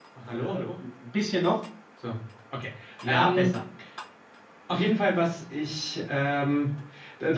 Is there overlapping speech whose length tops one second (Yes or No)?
No